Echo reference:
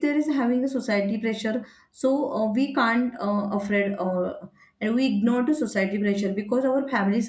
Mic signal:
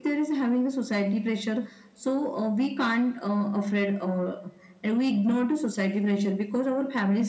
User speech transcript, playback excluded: none

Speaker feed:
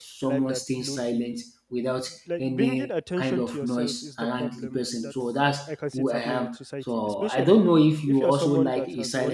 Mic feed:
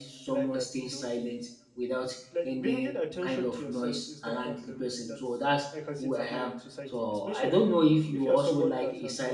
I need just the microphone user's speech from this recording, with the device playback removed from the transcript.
none

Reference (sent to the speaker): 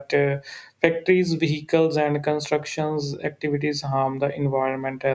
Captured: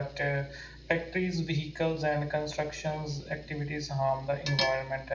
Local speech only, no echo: none

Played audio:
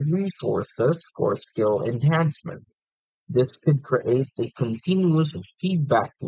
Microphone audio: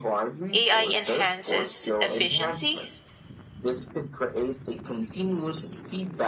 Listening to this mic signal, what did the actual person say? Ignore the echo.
AI enhances efficiency

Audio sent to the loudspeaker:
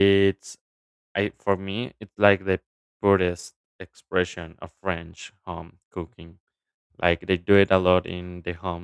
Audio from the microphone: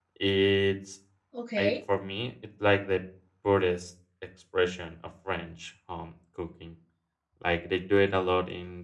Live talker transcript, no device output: Okay,

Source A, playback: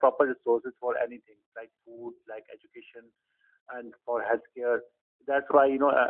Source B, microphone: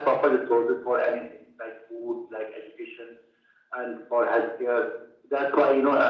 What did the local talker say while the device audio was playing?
none

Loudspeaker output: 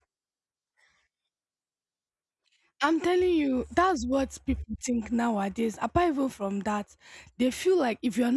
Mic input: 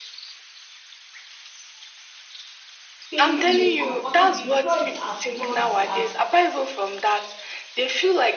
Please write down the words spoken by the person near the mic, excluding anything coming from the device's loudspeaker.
staying in a comfortable. They saw it as luxury, as

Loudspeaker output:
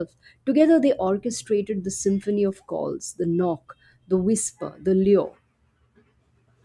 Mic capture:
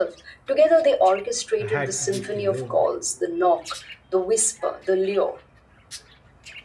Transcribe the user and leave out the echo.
had yet to learn.

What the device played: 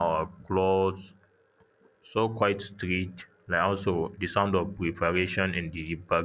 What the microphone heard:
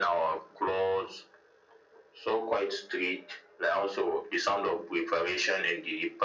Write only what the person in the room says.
none

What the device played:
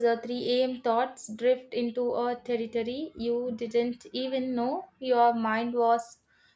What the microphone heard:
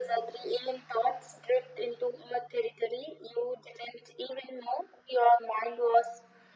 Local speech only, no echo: none

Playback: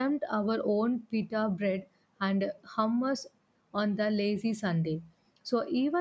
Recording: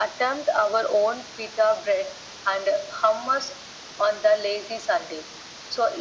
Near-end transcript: none

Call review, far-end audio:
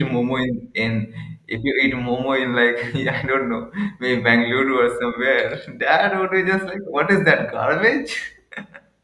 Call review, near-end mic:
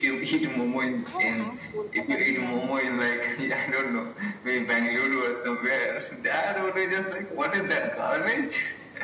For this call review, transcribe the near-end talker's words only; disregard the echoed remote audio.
I have had Kolkata biryani.

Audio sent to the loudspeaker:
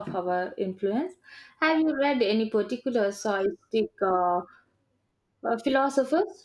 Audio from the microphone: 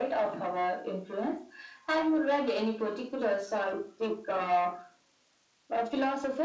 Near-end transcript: none

